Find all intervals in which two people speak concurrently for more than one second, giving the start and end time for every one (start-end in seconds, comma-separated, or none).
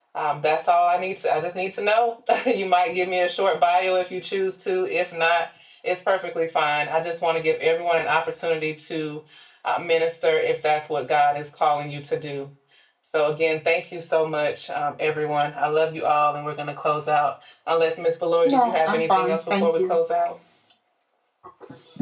18.4-20.0